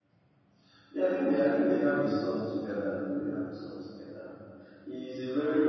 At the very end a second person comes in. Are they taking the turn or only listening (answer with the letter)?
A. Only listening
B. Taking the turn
A